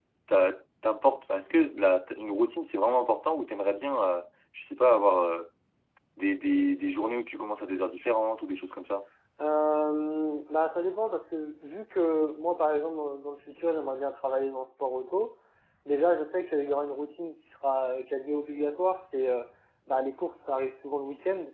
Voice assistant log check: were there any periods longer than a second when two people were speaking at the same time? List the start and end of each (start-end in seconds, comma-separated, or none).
none